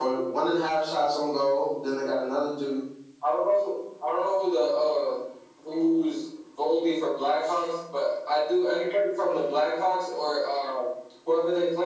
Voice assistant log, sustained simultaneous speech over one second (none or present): none